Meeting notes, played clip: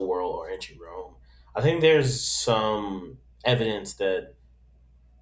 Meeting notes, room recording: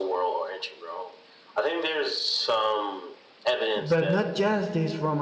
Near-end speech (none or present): present